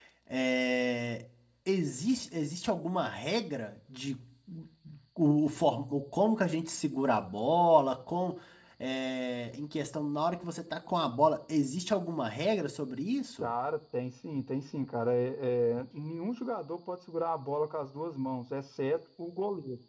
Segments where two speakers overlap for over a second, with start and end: none

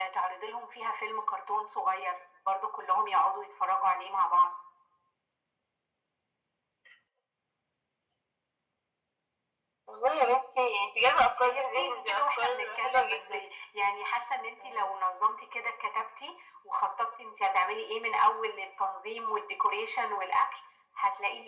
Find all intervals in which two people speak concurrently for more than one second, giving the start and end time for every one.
11.4-13.4

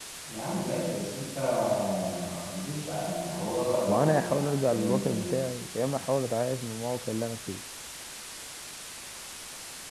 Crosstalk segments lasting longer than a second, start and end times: 3.9-5.2

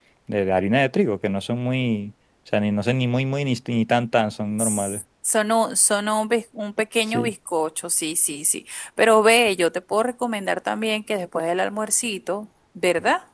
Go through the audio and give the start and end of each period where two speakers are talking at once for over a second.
none

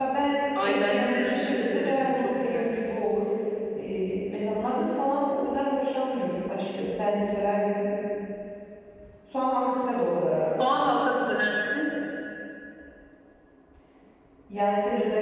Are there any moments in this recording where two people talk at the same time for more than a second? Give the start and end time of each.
0.6-2.7

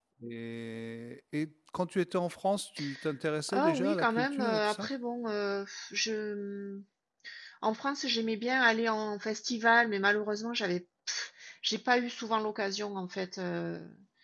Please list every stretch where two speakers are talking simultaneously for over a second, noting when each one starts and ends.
3.5-4.9

